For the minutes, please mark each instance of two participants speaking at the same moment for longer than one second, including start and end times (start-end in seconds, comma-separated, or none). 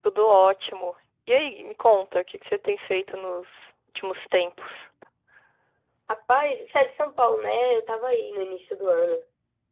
none